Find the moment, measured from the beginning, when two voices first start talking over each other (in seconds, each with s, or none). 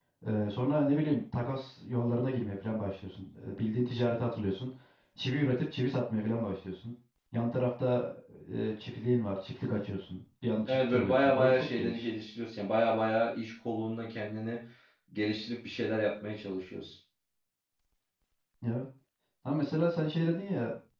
10.7 s